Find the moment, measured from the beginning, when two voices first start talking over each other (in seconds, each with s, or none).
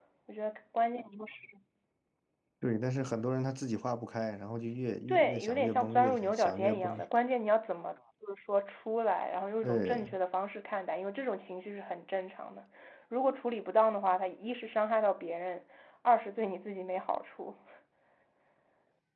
5.1 s